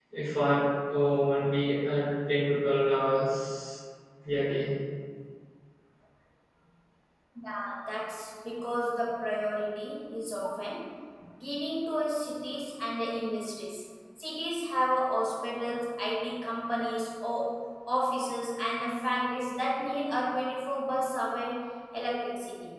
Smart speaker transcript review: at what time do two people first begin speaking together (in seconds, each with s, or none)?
none